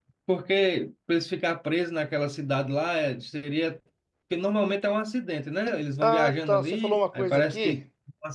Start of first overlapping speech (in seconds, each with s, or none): 6.0 s